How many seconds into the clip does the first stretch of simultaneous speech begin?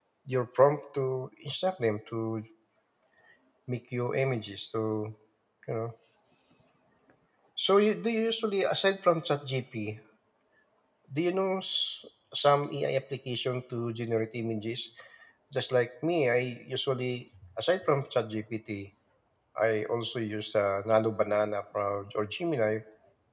none

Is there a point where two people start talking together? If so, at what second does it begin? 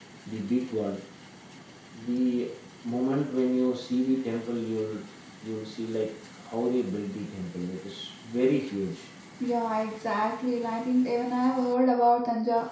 none

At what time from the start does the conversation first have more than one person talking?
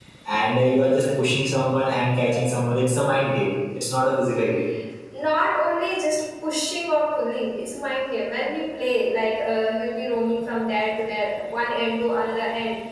none

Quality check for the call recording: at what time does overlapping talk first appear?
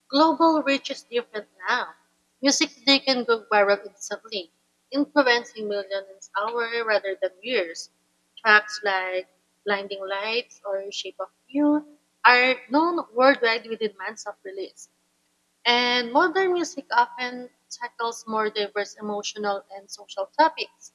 none

